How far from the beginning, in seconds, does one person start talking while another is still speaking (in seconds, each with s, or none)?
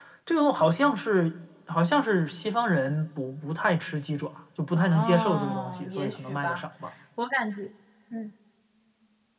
4.8 s